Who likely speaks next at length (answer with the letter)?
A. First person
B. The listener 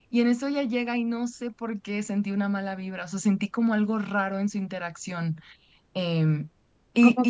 B